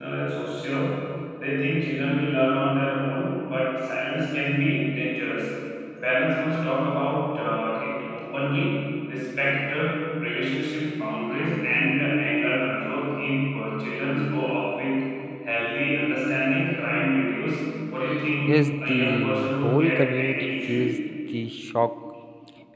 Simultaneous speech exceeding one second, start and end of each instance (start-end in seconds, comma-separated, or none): 18.5-21.0